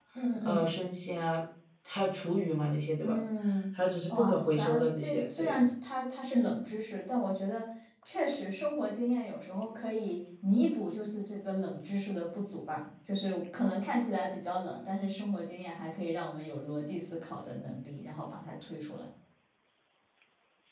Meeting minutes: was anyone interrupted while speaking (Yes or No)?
Yes